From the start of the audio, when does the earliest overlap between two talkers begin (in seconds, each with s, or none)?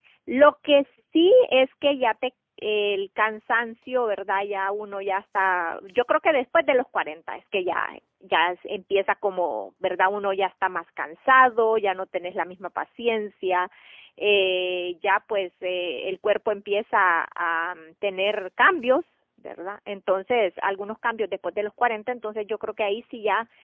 none